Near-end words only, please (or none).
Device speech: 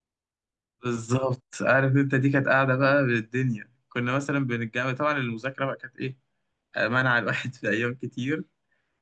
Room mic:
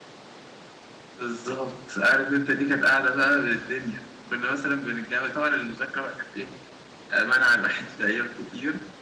none